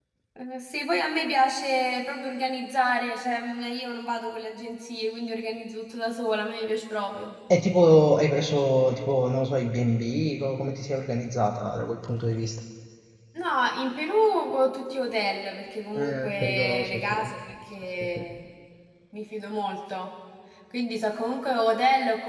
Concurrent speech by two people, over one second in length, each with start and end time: 16.0-17.2

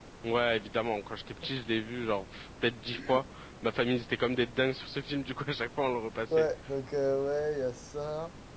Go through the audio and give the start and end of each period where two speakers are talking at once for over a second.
none

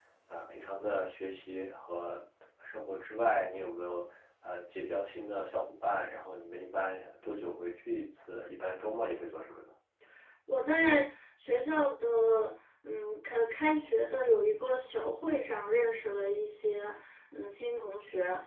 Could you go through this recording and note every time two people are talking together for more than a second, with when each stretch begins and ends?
none

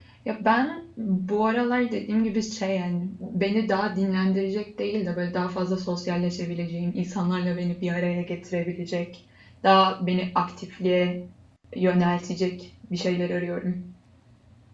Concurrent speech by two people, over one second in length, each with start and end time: none

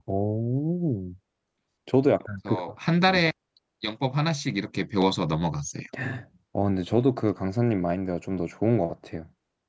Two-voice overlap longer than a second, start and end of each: none

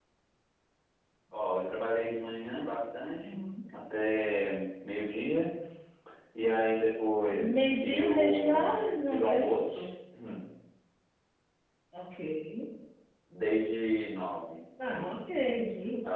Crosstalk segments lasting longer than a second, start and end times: 7.3-9.8

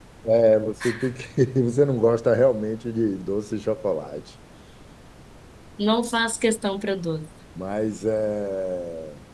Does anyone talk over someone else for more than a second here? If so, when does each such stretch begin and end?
none

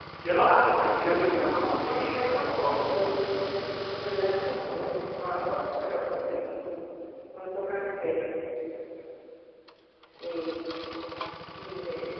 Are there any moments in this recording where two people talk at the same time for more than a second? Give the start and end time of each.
1.2-2.8

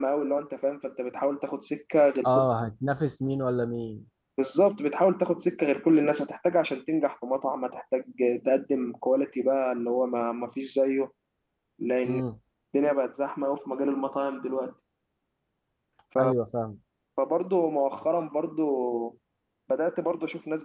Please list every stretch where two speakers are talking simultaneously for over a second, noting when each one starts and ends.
none

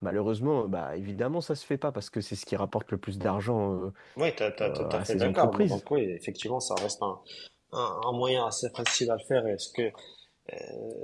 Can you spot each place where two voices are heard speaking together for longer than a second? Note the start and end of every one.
4.6-5.8

